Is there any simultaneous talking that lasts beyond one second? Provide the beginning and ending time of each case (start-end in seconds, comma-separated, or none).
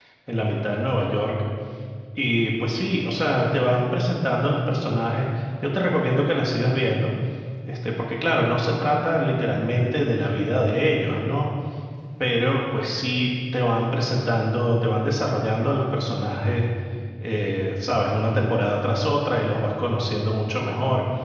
none